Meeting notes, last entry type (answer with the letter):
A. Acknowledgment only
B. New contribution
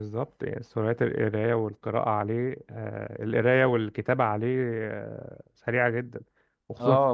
B